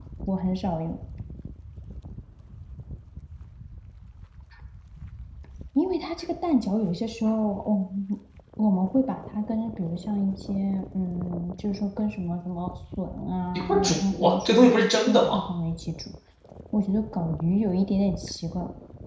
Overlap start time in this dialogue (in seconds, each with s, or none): 13.5 s